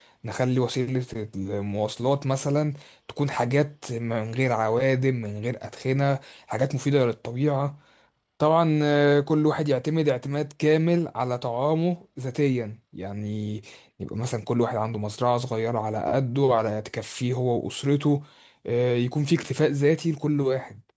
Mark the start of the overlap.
none

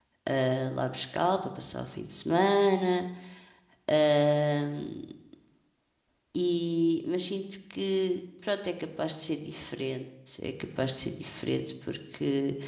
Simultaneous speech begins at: none

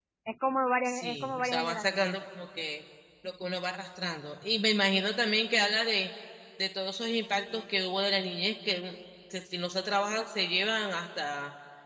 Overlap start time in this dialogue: 1 s

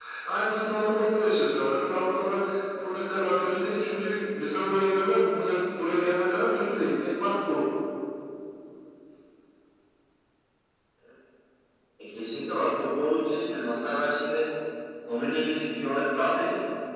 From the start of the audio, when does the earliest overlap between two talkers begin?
none

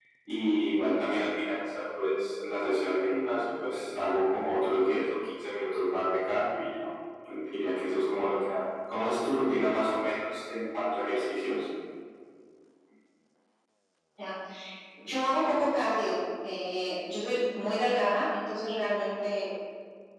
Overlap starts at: none

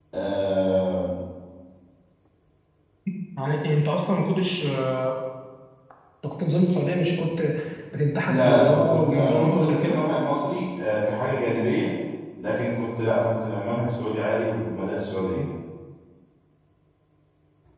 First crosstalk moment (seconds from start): 8 s

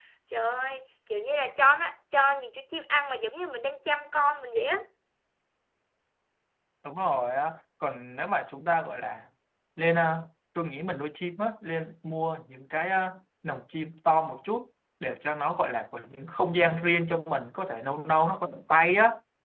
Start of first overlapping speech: none

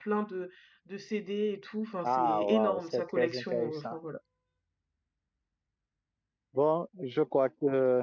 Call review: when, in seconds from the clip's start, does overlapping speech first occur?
2 s

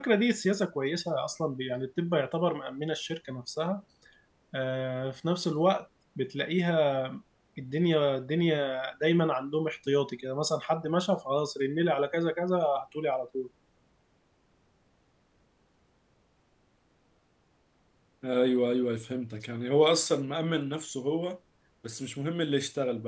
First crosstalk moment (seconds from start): none

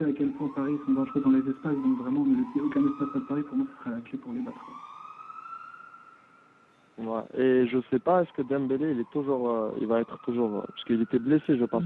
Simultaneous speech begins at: none

